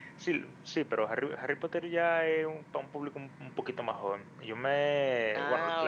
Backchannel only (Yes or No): Yes